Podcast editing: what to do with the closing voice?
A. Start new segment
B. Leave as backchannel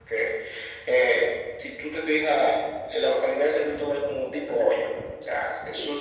B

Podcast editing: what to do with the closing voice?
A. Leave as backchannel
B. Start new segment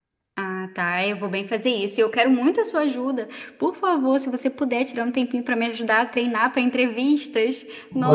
B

